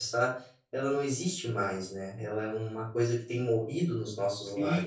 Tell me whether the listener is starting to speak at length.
Yes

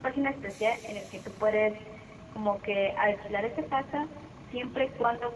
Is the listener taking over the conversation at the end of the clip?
No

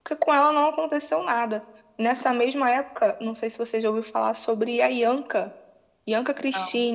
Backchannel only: Yes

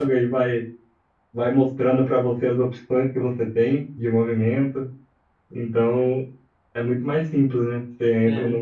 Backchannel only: Yes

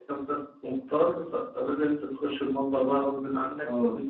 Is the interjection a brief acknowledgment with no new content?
No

